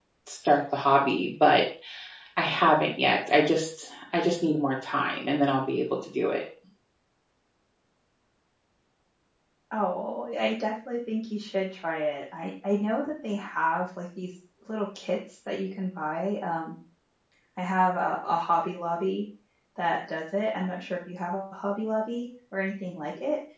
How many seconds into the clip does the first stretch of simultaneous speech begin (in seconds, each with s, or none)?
none